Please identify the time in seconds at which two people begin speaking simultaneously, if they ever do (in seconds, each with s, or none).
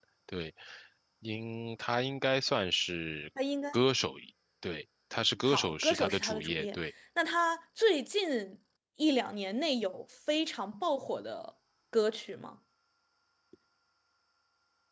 5.5 s